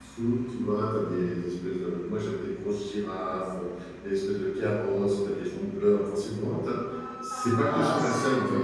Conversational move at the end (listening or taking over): taking over